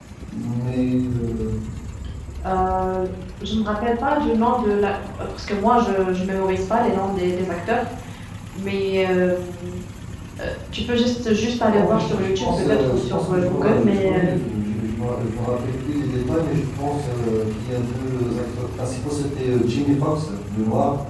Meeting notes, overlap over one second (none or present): present